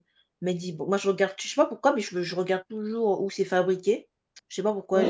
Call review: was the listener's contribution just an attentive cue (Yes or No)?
Yes